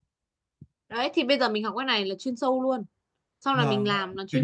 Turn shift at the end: Yes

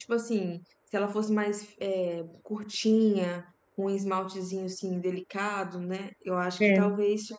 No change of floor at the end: Yes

